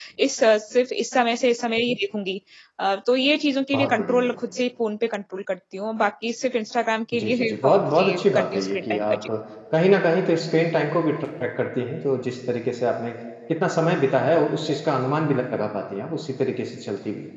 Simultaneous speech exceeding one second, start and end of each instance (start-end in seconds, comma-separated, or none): 7.1-9.2